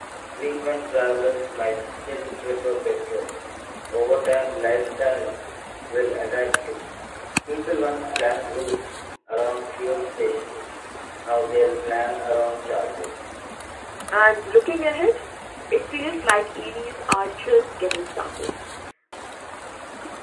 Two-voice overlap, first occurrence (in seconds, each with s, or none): none